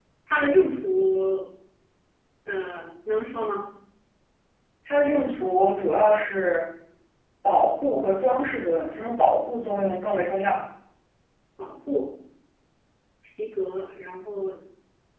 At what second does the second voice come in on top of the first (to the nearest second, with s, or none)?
none